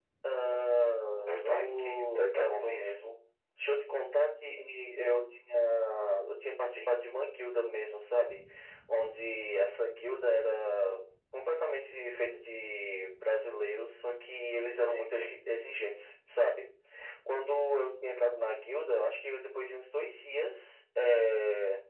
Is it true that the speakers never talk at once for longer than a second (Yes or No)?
No